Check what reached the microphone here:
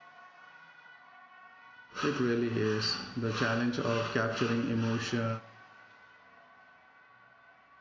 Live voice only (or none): It really is the challenge of capturing emotion